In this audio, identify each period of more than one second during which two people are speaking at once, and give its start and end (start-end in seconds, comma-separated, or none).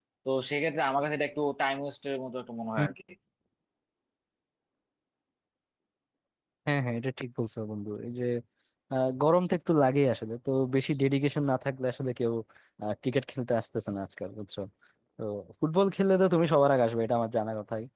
none